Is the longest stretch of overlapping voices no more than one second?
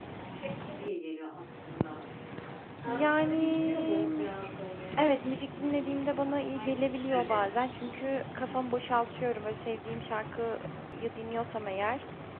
No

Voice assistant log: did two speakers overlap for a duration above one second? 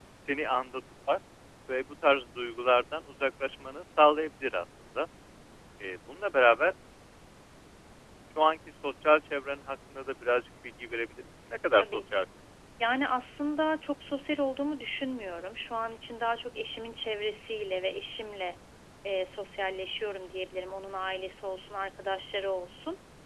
No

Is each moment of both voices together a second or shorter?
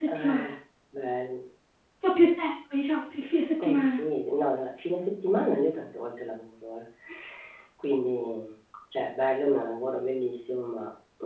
Yes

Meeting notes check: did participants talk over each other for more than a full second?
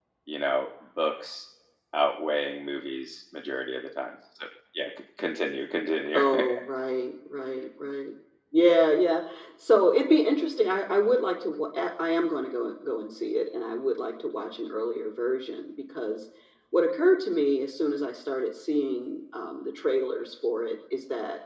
No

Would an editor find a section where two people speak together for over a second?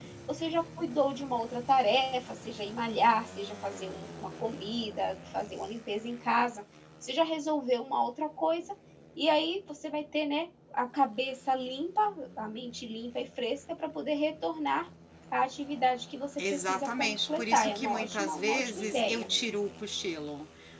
Yes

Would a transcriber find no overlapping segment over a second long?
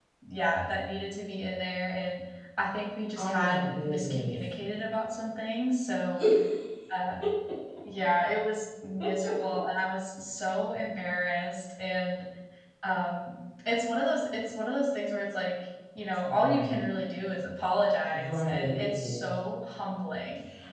No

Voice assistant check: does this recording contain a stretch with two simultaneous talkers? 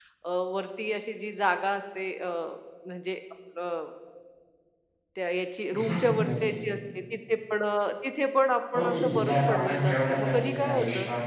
Yes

